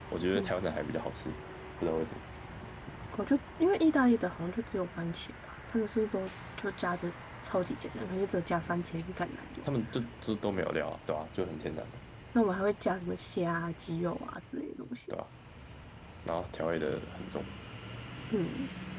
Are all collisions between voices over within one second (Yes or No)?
Yes